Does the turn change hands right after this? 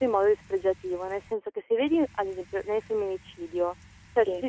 No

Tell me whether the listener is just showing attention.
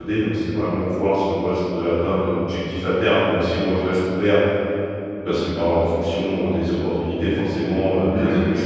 Yes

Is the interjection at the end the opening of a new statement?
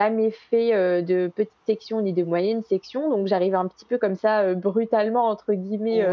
No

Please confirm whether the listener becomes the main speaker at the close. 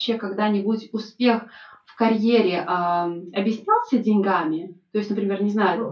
Yes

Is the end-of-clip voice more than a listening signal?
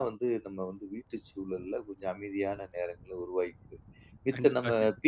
No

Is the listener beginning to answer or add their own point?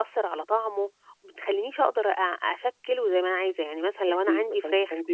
Yes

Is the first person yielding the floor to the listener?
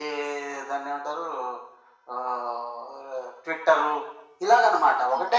Yes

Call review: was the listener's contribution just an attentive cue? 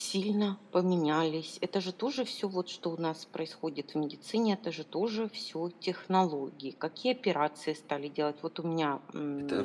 No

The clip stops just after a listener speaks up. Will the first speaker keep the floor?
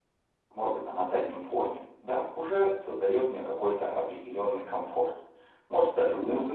Yes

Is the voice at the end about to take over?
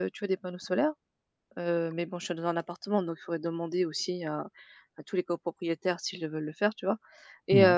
No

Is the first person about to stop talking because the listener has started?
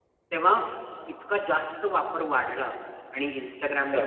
No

